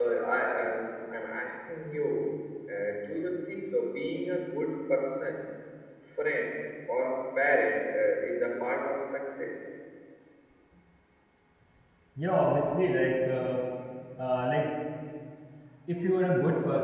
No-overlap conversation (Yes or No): Yes